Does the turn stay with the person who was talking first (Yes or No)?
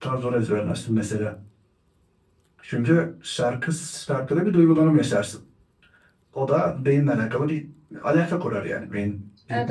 No